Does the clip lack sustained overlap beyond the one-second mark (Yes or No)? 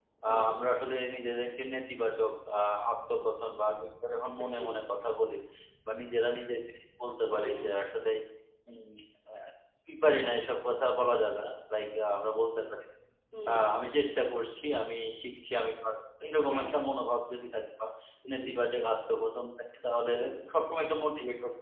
Yes